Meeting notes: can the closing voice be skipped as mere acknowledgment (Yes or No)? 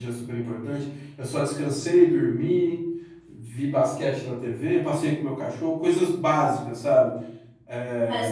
No